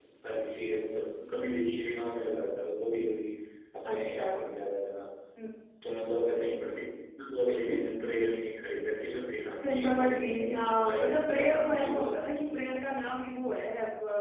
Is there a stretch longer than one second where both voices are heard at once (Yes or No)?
Yes